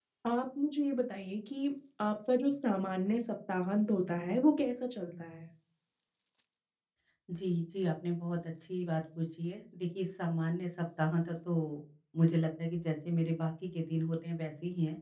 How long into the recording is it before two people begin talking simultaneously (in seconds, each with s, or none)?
none